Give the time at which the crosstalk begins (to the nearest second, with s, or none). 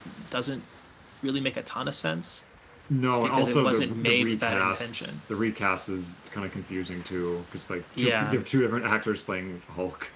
3 s